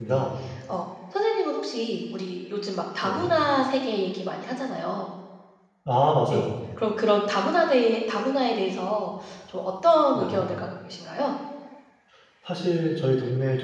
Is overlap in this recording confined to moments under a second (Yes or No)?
Yes